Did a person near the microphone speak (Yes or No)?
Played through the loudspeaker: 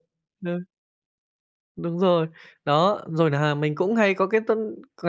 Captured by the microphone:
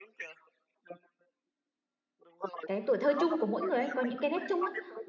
Yes